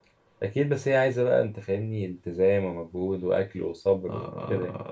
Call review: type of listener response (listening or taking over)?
taking over